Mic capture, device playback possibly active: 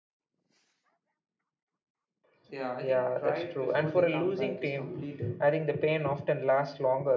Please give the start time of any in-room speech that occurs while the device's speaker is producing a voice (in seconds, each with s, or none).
2.5 s